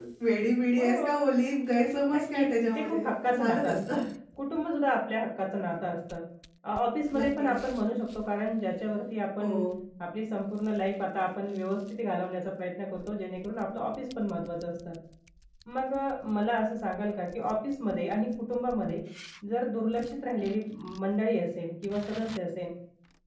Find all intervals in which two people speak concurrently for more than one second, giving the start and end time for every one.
2.1-4.0

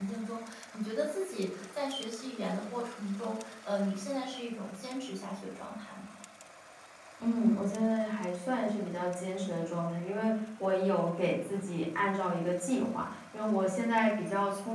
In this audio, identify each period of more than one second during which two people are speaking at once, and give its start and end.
none

